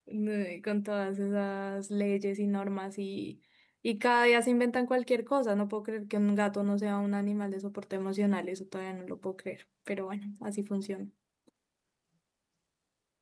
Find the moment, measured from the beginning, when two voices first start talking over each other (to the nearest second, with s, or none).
none